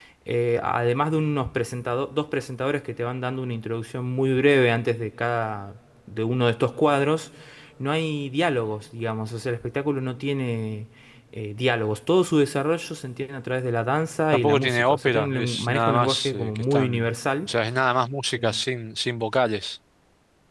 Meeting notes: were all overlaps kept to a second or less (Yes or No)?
No